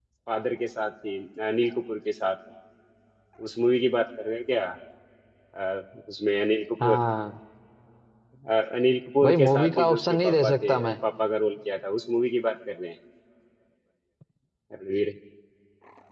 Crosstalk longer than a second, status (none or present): present